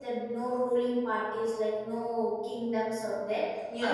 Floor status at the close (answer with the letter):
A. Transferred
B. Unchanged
B